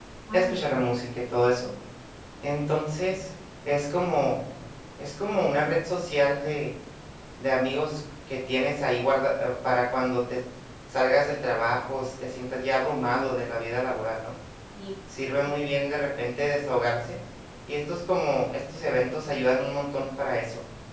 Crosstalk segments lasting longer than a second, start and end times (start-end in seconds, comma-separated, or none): none